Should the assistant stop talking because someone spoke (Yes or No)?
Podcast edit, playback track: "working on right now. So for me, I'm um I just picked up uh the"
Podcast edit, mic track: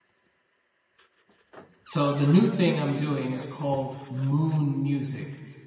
Yes